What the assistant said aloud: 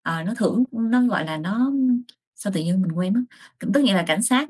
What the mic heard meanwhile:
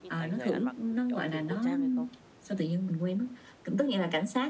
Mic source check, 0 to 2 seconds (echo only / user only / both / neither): both